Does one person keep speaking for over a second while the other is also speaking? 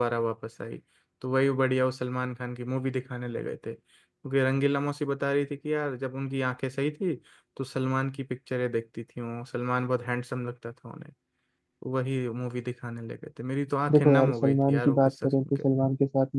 Yes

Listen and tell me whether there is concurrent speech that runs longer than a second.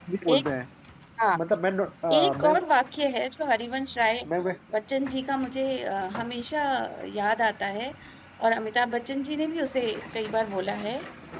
No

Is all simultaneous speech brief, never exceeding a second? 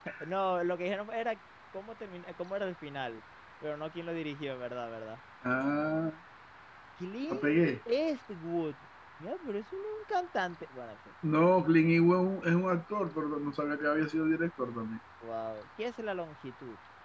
Yes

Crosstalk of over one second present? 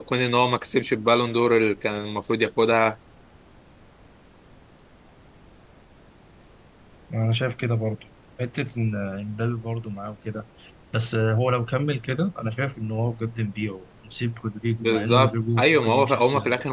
Yes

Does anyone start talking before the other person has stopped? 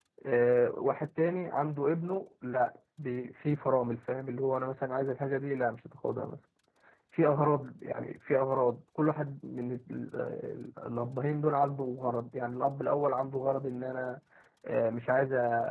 No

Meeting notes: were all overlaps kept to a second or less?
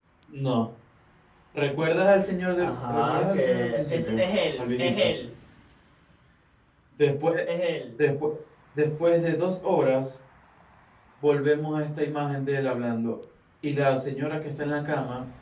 No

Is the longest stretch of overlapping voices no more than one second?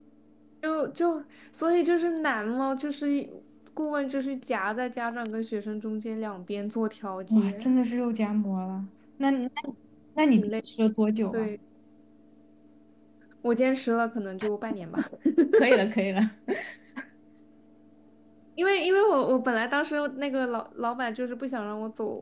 Yes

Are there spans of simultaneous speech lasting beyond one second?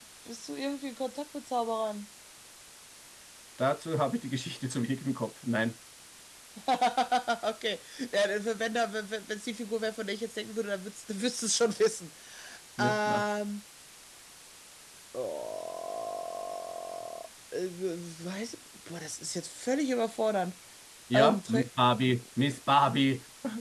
No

